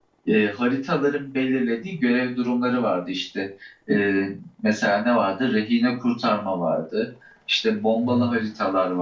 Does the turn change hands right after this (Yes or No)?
No